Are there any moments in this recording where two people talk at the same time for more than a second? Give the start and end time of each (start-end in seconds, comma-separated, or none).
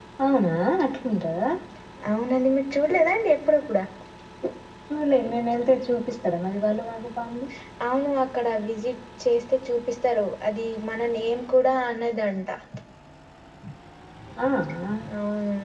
none